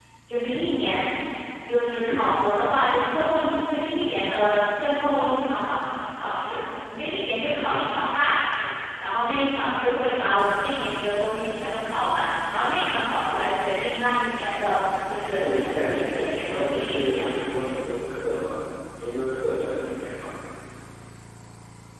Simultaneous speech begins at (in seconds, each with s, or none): 15.1 s